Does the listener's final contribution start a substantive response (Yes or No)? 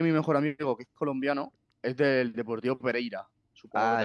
Yes